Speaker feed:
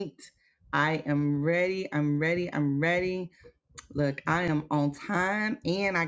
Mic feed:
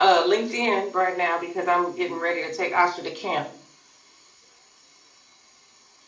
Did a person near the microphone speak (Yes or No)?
Yes